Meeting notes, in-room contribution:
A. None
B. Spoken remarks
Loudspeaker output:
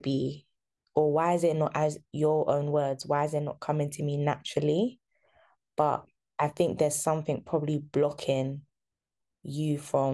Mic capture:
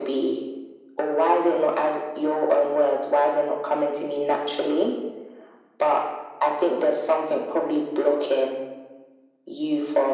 A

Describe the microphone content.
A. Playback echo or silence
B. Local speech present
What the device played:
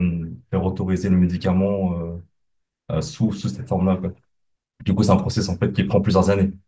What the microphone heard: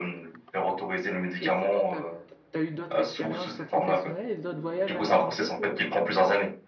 B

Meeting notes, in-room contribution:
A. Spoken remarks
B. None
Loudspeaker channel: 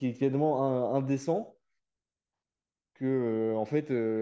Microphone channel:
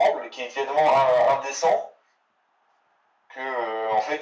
B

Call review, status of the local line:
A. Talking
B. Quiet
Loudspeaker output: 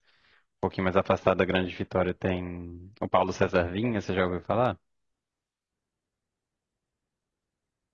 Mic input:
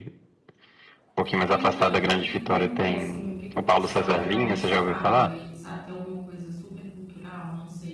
A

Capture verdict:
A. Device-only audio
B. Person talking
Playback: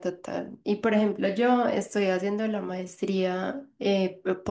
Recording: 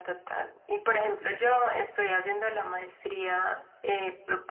A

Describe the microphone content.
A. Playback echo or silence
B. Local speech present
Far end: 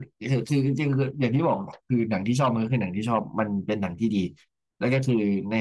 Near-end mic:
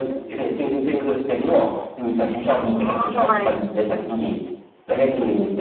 B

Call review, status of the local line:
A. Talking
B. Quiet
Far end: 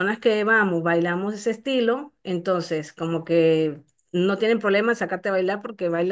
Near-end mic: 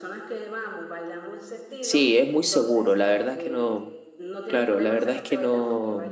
A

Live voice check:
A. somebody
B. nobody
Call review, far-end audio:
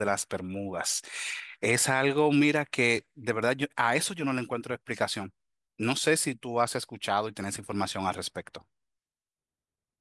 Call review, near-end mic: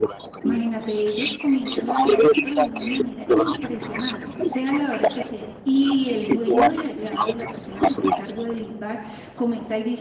A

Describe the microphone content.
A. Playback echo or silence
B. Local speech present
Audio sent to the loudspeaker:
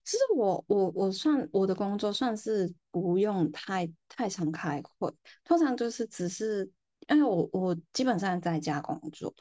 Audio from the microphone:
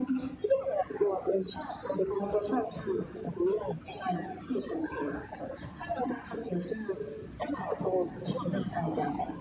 A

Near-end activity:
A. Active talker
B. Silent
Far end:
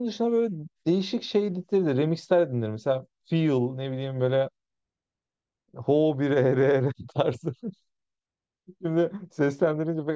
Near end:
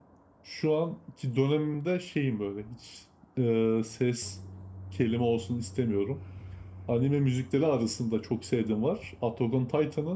A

